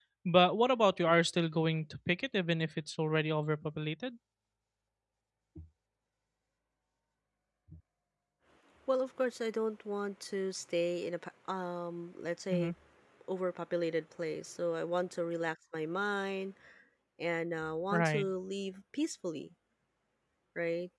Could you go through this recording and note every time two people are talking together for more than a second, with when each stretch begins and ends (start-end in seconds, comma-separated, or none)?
none